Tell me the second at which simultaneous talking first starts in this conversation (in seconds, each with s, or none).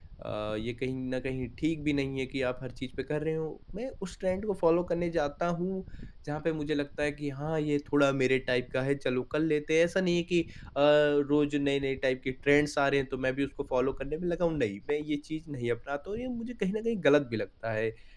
none